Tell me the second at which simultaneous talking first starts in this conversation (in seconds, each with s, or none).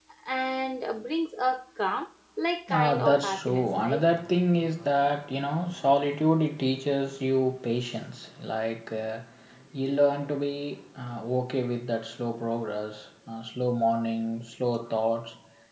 2.7 s